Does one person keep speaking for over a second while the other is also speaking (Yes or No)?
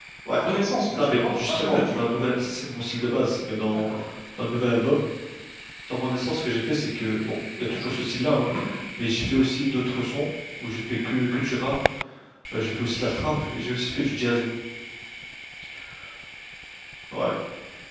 Yes